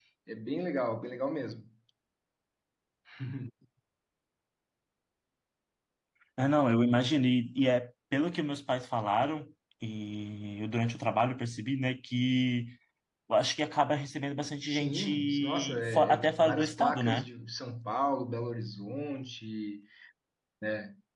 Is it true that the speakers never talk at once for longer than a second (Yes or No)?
No